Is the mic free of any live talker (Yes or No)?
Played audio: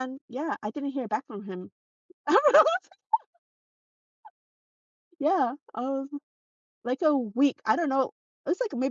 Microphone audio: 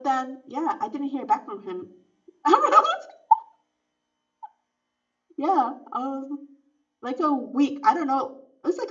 Yes